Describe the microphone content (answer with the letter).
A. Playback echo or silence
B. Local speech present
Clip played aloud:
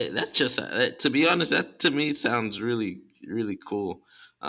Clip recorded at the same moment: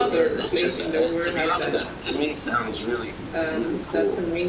B